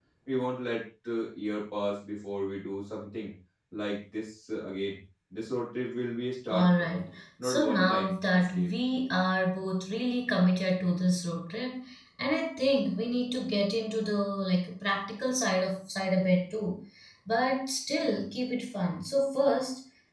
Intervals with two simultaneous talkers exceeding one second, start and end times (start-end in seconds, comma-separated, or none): 7.4-8.7